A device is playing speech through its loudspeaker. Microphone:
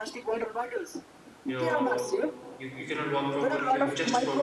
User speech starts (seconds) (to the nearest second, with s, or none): 1 s